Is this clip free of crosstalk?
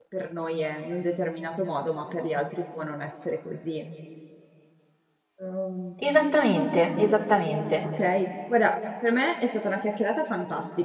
Yes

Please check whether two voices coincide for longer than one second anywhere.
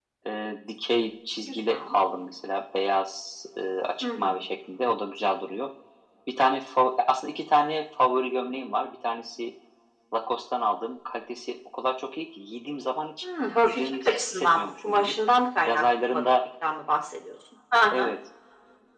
Yes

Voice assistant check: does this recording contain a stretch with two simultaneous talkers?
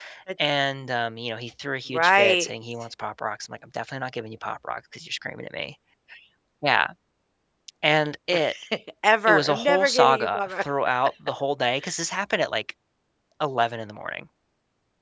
Yes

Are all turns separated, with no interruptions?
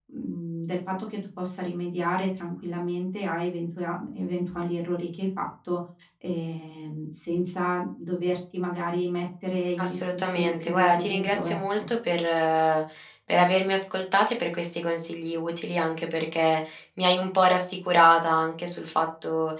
No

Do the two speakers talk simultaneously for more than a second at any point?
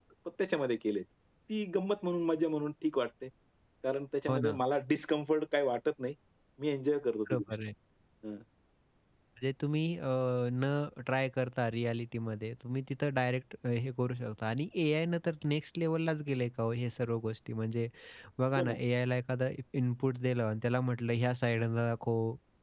No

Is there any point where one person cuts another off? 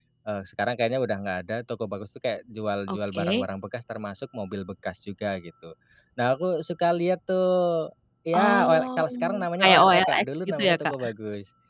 Yes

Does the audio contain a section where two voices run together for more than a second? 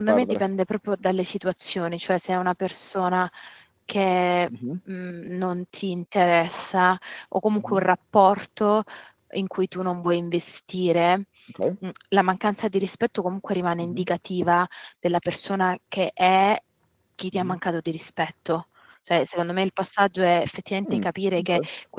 No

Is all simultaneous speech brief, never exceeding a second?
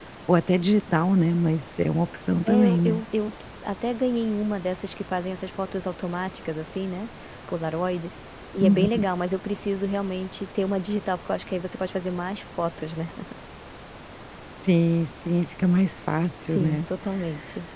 Yes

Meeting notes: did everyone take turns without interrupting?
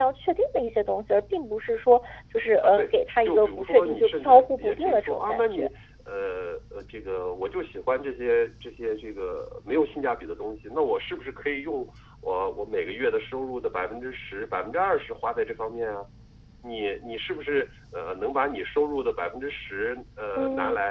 No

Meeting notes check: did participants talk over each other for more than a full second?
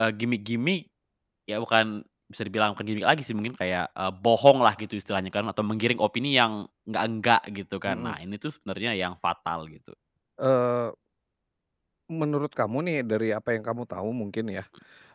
No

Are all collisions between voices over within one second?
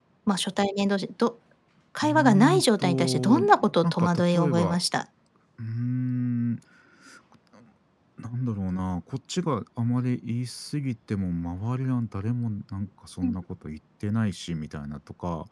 No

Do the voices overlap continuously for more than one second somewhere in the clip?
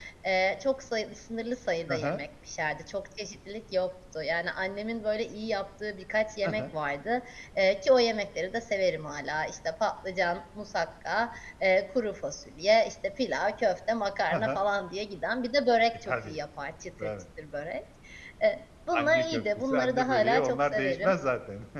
Yes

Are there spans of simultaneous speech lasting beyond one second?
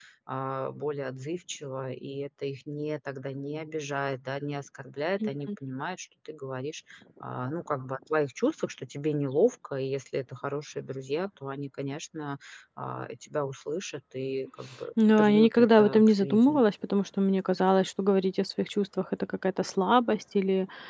Yes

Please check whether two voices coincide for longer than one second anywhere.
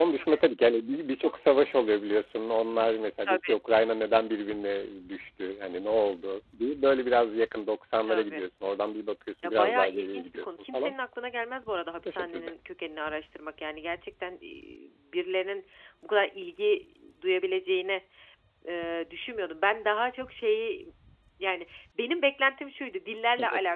Yes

